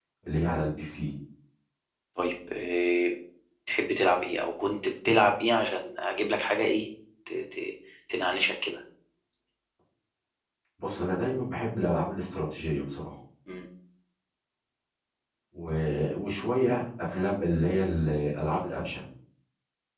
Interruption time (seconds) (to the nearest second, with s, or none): none